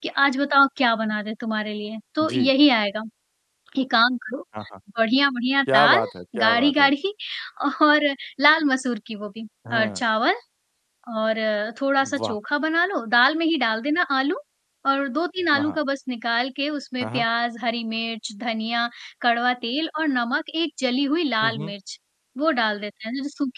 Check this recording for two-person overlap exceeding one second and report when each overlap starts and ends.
none

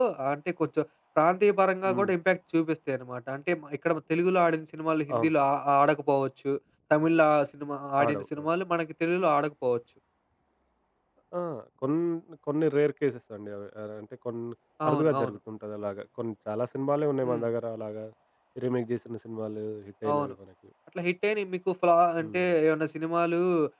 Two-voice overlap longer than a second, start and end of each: none

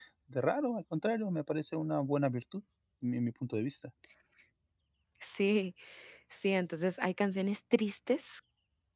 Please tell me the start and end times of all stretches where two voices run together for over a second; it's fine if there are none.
none

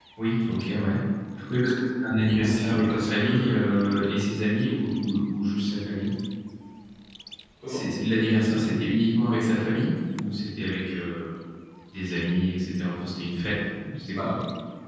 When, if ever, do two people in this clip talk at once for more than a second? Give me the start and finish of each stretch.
2.2-3.7

